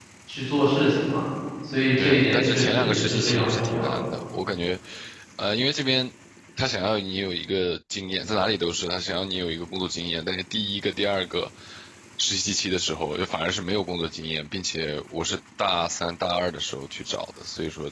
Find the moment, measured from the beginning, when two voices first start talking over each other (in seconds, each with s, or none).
2.0 s